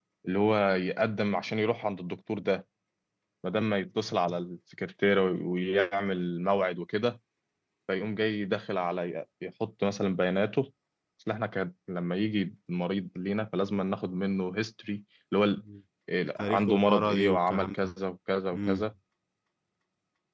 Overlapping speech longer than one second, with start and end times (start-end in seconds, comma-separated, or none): 16.4-17.9